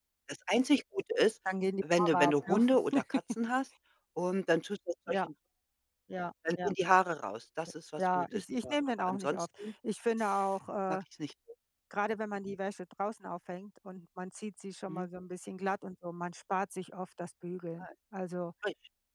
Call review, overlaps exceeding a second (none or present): present